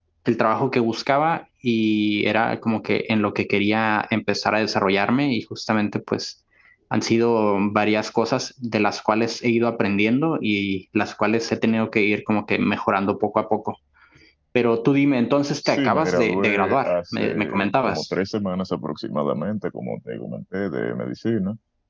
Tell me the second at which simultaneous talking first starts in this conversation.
15.6 s

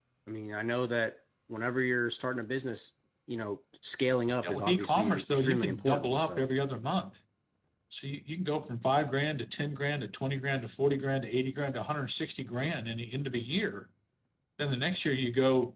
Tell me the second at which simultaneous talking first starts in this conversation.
4.4 s

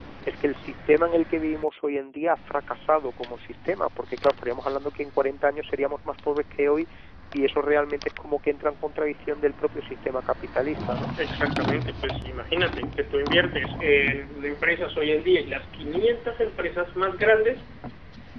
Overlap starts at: none

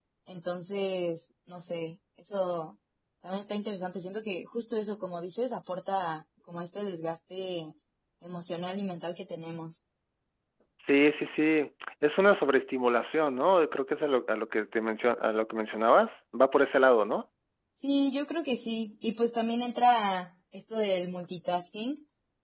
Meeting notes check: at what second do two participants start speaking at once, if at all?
none

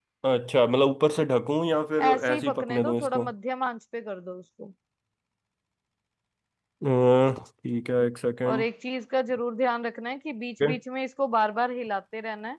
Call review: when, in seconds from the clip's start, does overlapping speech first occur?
2.0 s

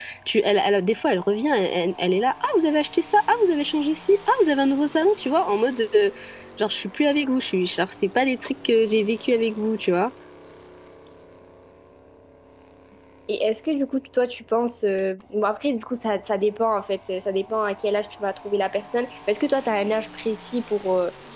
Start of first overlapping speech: none

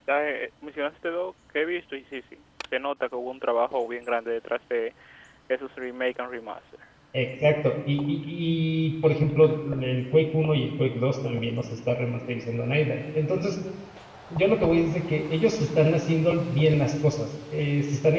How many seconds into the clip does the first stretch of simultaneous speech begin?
none

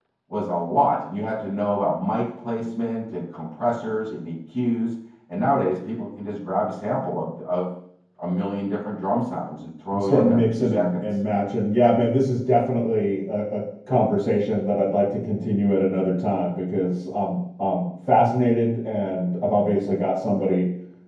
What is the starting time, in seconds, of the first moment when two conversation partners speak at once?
9.9 s

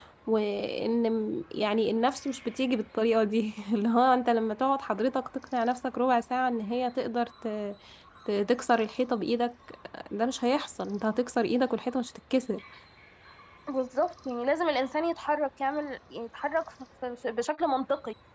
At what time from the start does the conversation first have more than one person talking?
none

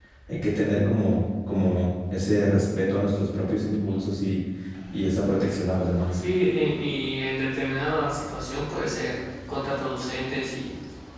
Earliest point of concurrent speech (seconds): none

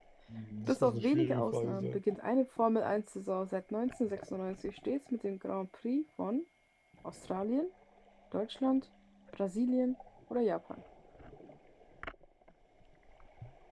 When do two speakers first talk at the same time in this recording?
0.7 s

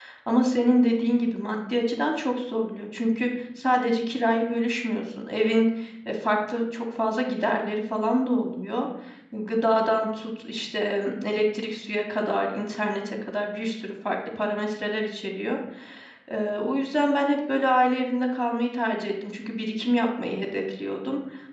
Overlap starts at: none

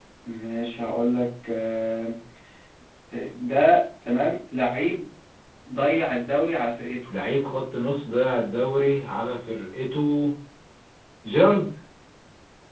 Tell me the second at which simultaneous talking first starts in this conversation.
none

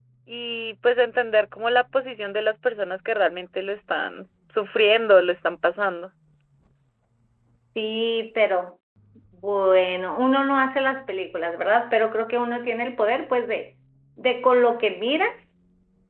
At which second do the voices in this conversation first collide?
none

